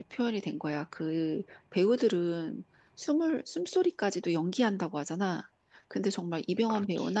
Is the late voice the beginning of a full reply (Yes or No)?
No